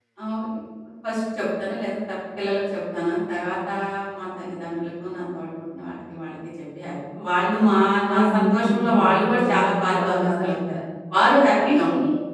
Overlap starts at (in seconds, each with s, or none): 8.1 s